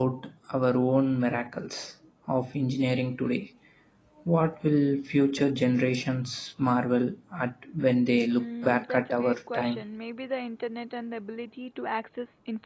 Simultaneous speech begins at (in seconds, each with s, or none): 8.4 s